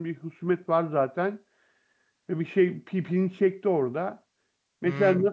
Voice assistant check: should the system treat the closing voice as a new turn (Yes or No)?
No